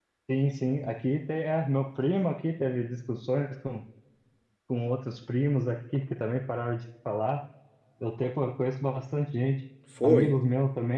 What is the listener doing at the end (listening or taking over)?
listening